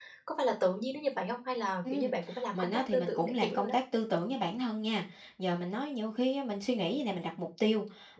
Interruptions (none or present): present